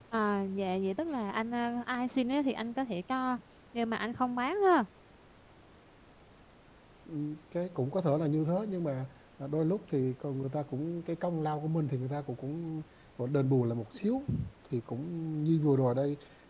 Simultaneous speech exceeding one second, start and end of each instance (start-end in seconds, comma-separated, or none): none